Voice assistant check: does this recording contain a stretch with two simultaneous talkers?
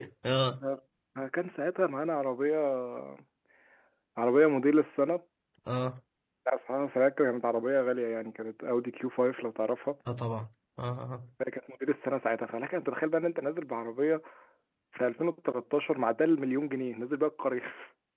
No

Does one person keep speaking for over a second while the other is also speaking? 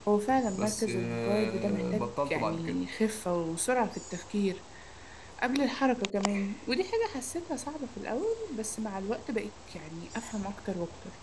Yes, from 0.5 s

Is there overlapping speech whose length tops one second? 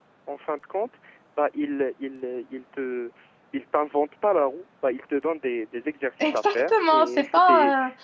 Yes, from 6.2 s

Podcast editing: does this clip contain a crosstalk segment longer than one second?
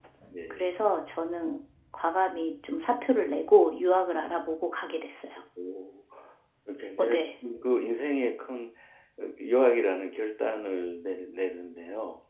No

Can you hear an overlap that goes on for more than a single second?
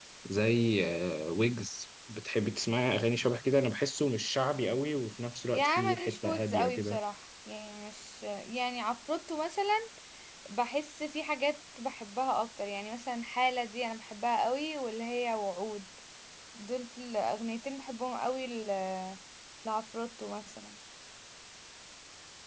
Yes, from 5.5 s

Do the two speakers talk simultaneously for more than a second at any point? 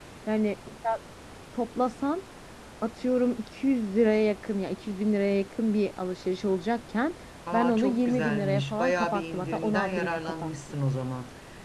Yes, from 7.5 s

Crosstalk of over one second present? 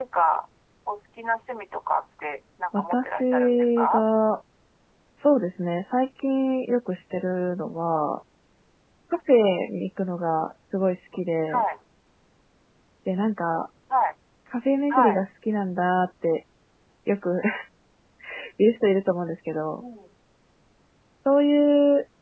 Yes, from 2.8 s

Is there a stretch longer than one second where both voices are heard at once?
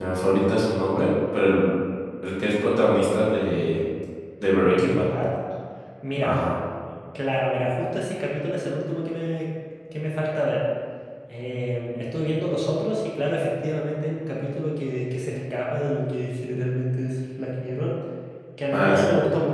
No

